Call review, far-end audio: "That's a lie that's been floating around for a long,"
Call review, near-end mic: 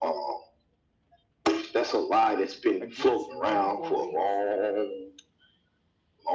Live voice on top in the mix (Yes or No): No